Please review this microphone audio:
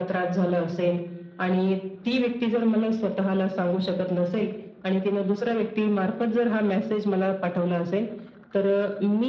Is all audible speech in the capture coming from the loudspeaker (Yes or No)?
Yes